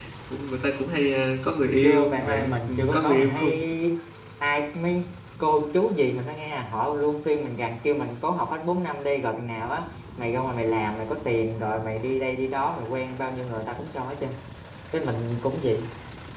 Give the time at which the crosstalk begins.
1.8 s

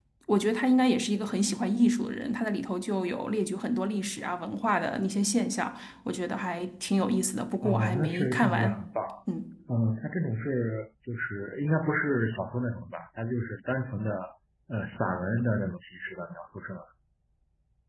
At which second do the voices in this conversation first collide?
7.6 s

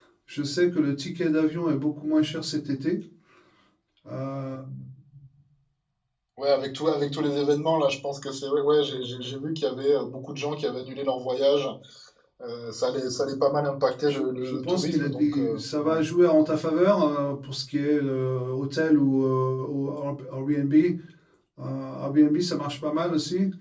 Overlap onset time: 14.1 s

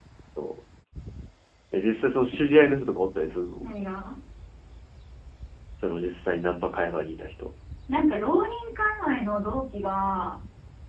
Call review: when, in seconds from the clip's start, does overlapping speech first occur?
none

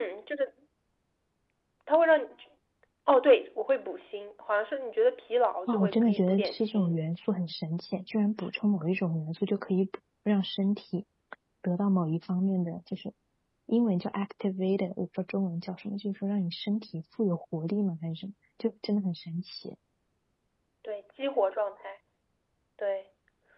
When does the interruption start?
5.7 s

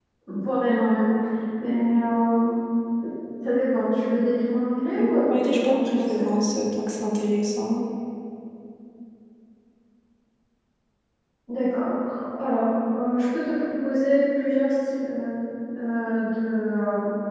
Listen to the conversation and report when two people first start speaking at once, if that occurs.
5.0 s

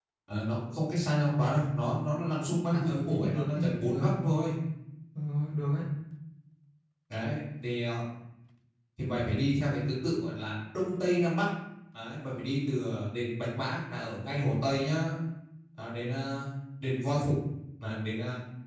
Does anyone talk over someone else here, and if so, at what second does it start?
2.7 s

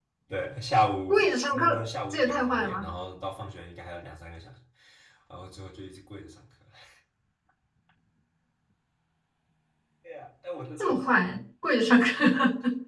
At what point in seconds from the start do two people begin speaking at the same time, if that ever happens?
1.1 s

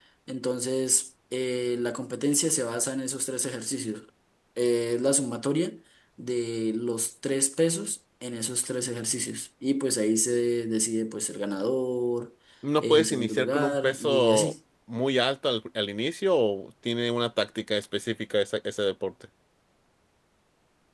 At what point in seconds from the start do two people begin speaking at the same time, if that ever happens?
12.8 s

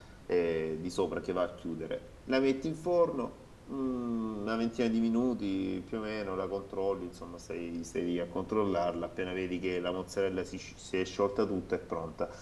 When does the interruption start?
none

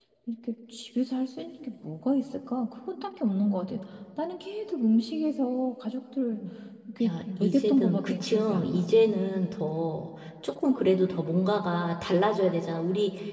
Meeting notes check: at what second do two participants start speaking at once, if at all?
7.0 s

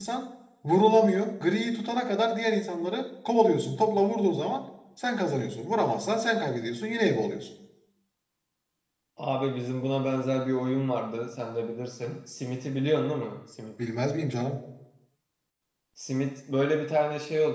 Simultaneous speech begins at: none

